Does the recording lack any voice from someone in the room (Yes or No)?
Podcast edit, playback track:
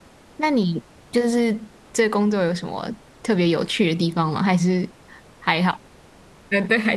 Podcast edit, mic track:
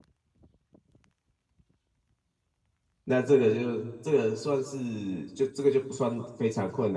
No